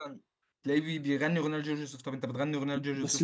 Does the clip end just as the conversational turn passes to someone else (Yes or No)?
Yes